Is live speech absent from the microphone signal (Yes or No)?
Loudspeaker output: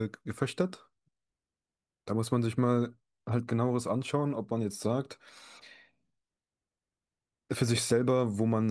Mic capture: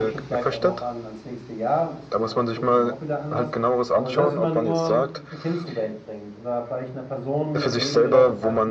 No